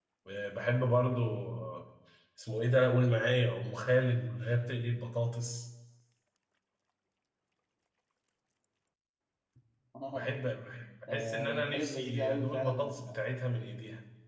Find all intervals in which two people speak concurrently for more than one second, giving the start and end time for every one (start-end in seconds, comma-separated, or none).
11.1-13.0